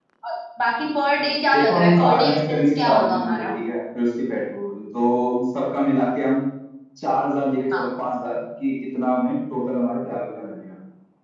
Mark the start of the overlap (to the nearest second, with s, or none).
2 s